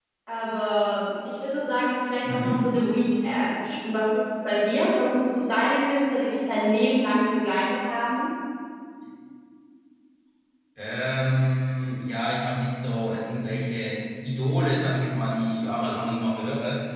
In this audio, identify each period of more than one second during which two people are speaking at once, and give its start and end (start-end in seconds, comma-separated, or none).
none